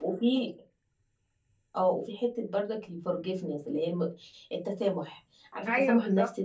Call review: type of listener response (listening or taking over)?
listening